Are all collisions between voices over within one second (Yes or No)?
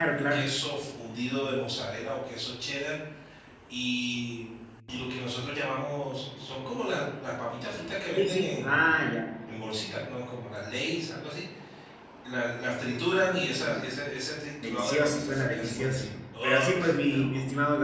No